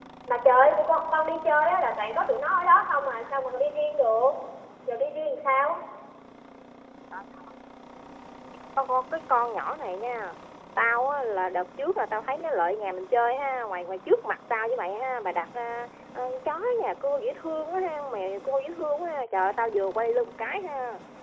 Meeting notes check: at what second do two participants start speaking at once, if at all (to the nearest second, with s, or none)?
none